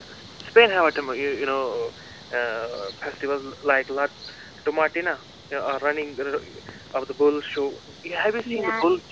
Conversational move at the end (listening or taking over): taking over